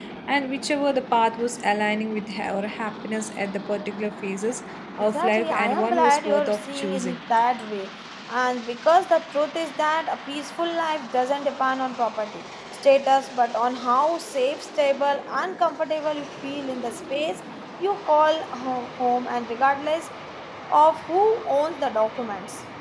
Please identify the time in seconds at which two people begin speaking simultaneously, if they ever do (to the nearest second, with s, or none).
5 s